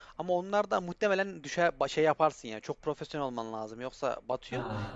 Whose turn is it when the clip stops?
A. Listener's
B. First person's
A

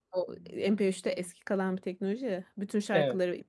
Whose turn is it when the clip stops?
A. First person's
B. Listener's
A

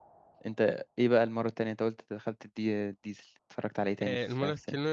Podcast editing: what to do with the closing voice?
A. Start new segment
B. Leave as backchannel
A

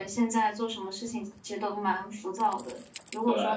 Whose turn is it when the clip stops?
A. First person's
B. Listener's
A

